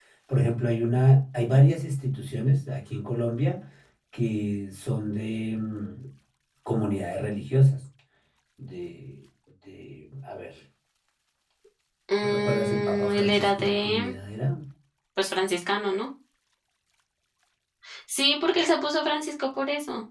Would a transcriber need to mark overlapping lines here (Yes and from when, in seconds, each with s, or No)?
Yes, from 12.2 s